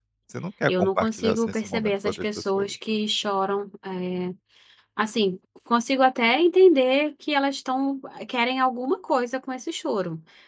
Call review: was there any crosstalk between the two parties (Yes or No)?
Yes